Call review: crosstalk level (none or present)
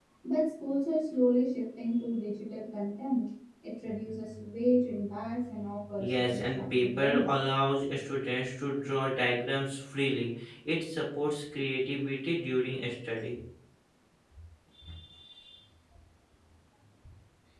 present